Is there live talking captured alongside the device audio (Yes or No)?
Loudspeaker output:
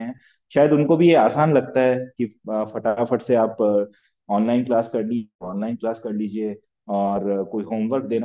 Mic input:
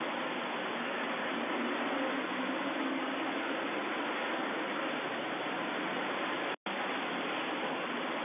No